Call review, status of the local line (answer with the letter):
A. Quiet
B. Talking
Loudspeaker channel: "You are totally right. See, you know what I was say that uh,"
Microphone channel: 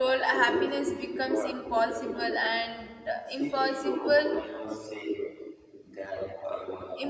B